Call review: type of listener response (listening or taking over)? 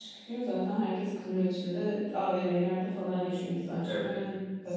taking over